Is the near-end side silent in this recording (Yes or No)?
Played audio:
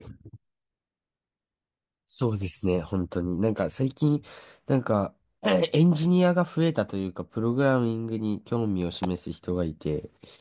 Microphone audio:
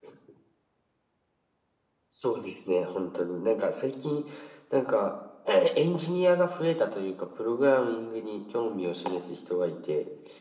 Yes